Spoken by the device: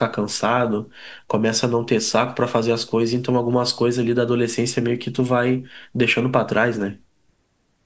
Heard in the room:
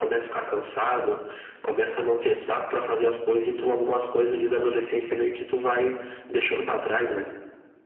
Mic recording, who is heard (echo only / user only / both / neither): echo only